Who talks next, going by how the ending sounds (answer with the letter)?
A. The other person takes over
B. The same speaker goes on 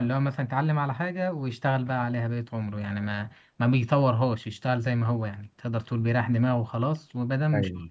B